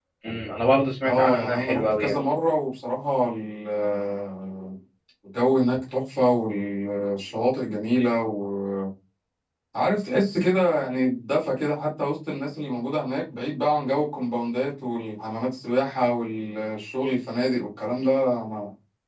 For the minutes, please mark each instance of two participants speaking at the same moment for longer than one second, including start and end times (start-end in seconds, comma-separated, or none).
1.0-2.2